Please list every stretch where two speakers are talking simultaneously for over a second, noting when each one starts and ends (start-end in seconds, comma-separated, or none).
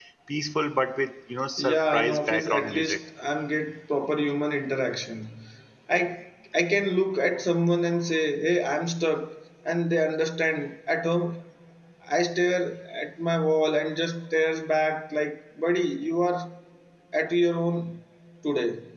1.6-3.0